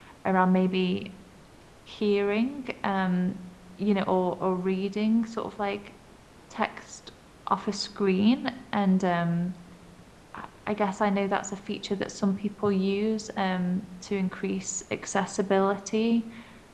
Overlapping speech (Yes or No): No